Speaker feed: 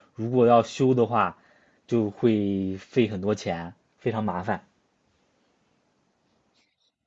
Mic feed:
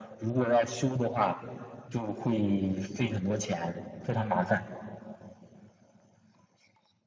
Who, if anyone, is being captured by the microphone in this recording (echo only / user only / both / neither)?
echo only